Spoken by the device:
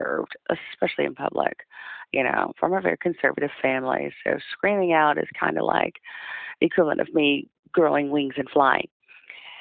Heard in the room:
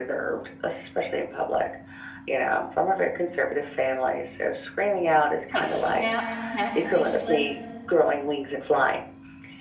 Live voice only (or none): like snap snap bracelet?